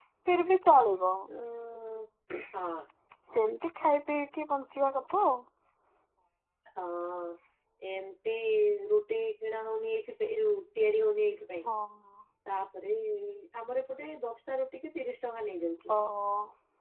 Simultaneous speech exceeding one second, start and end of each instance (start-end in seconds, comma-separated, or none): none